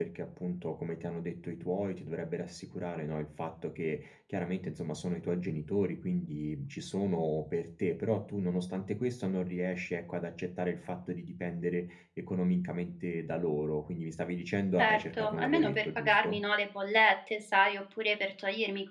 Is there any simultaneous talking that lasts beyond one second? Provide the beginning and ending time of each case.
14.8-16.4

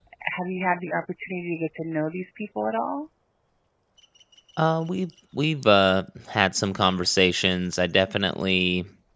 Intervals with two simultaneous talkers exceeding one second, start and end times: none

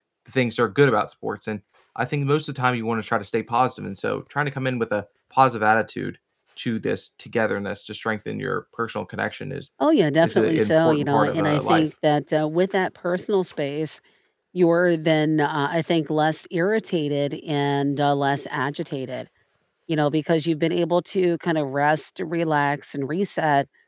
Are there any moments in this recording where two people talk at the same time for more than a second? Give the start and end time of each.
10.2-11.9

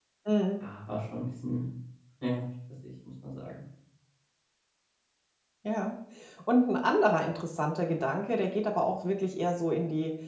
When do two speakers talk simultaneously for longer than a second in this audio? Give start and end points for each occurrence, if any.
none

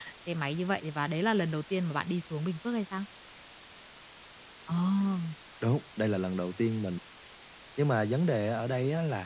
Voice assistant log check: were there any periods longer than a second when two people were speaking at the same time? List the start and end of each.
none

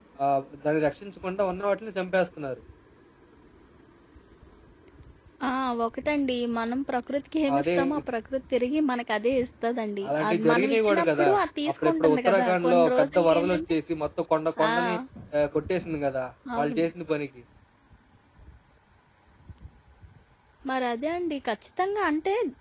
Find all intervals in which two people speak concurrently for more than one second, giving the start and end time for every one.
10.1-11.3, 11.8-13.7

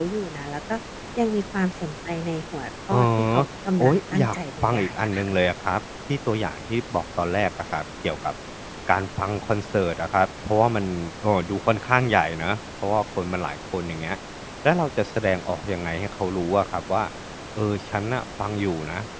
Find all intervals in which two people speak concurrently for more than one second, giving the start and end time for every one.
3.8-5.3

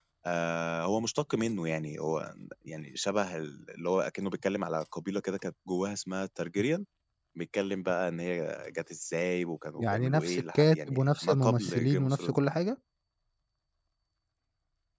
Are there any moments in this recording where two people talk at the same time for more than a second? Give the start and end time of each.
9.8-12.4

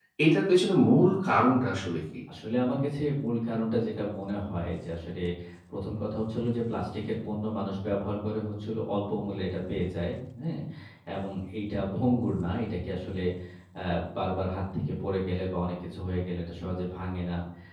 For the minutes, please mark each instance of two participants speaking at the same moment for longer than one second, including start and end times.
none

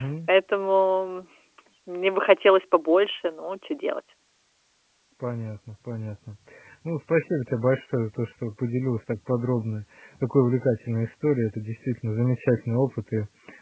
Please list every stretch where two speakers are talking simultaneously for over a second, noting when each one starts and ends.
none

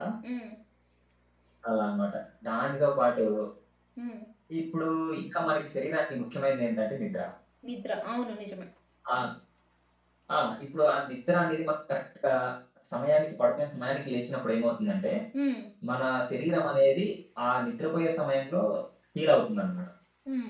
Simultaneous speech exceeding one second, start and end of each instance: none

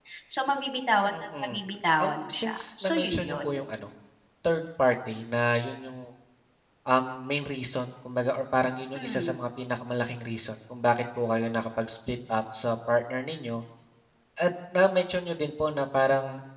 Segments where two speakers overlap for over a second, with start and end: 2.0-3.6

